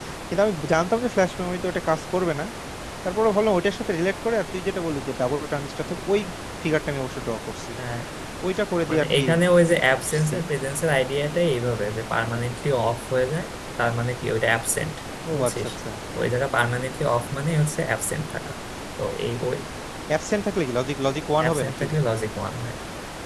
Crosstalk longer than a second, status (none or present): none